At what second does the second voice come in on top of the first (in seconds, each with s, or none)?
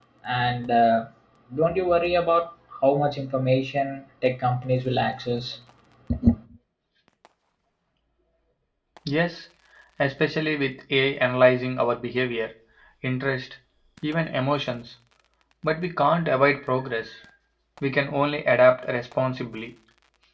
none